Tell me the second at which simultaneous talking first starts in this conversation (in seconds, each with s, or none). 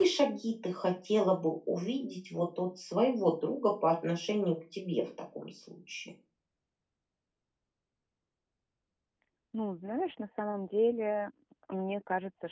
none